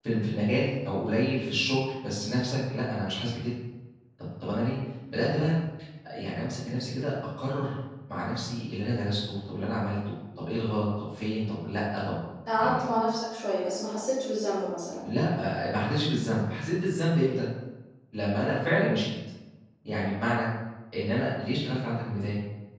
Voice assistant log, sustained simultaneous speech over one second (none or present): none